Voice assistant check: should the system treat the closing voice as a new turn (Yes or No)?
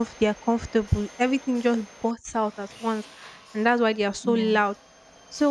No